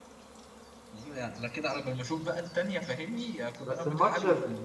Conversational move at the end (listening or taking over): taking over